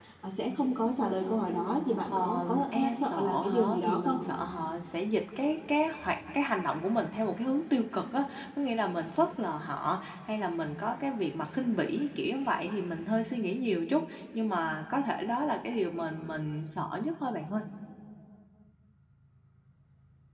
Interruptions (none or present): present